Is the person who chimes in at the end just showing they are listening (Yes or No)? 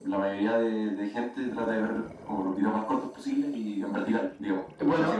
No